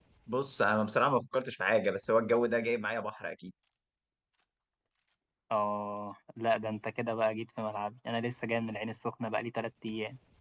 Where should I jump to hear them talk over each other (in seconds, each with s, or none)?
none